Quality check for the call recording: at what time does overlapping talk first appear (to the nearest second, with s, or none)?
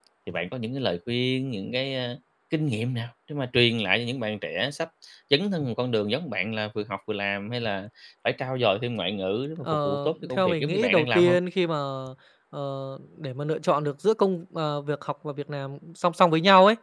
10 s